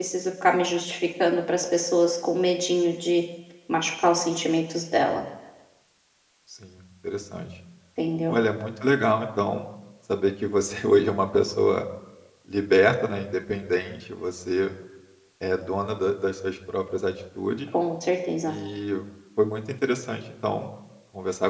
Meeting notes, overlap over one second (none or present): none